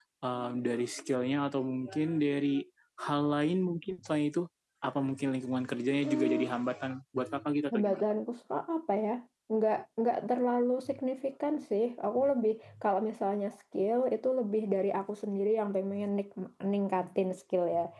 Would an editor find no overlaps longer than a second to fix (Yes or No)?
Yes